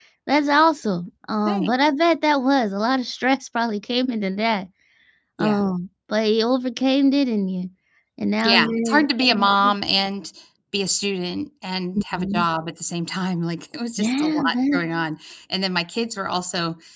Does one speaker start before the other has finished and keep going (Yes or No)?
Yes